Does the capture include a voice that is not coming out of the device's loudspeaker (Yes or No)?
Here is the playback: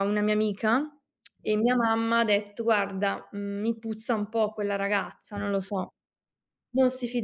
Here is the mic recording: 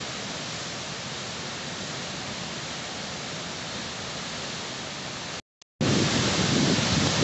No